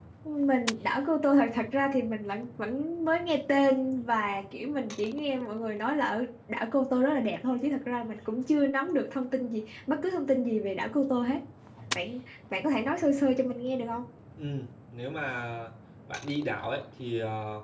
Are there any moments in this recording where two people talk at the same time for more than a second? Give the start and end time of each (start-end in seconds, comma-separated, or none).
none